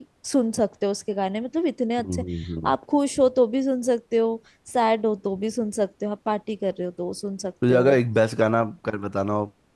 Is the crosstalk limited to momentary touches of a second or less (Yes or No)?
Yes